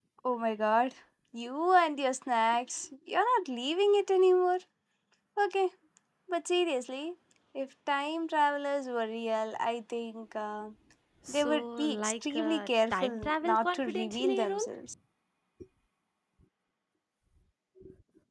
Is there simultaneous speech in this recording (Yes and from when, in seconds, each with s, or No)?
Yes, from 11.3 s